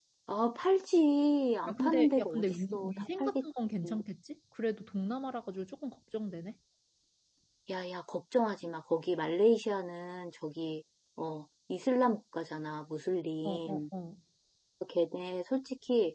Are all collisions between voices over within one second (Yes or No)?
No